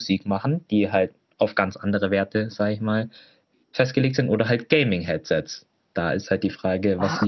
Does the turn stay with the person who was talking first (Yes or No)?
No